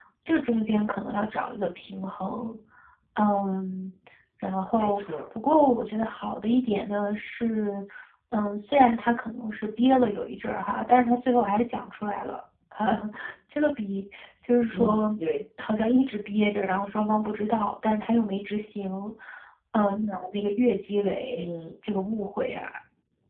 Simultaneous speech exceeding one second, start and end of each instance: none

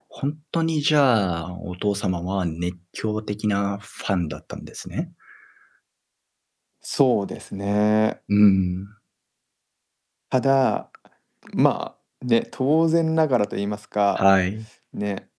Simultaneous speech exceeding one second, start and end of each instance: none

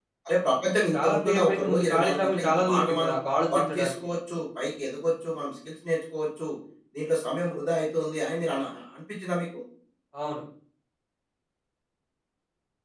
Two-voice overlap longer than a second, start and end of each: 0.9-3.1

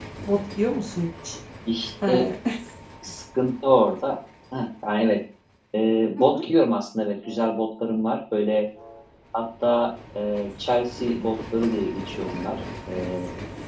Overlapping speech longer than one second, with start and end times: none

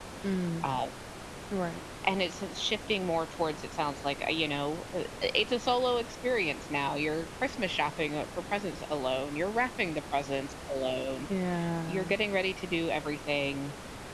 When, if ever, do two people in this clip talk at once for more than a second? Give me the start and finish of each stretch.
none

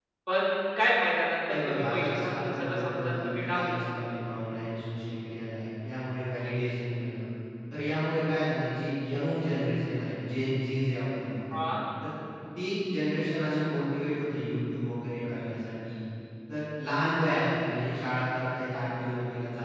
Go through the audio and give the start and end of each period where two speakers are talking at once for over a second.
1.5-3.7

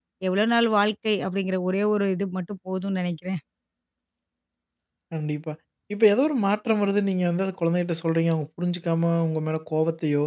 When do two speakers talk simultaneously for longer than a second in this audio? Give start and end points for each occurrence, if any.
none

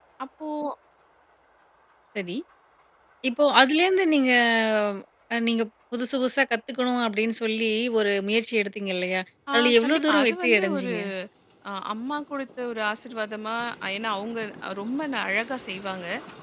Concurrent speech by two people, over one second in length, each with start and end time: 9.5-10.9

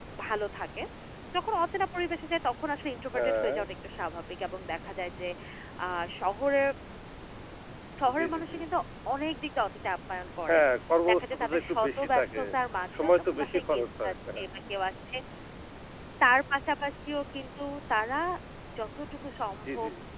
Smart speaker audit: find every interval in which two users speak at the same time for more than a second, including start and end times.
11.1-12.4, 12.9-14.4

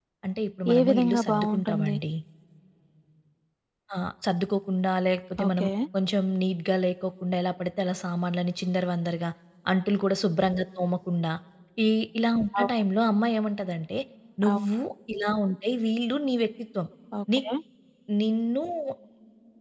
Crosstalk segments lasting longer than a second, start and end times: 0.7-2.0

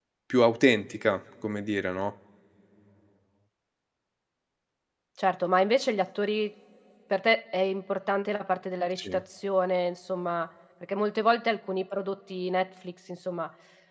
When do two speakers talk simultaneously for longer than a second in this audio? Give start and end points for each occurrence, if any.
none

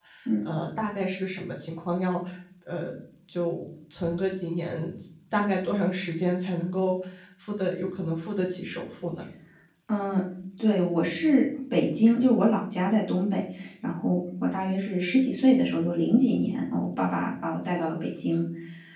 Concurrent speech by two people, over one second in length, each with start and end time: none

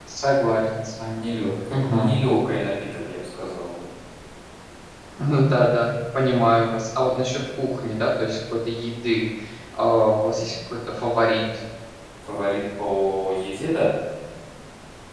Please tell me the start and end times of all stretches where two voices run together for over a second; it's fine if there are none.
none

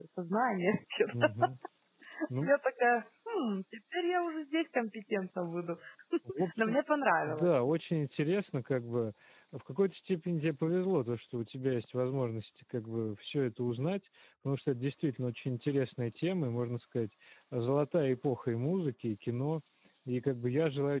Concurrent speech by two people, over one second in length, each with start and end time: none

